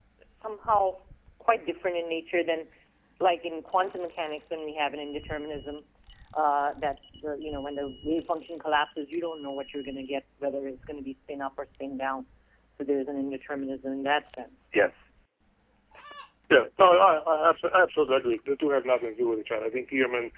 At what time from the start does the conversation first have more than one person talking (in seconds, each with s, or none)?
none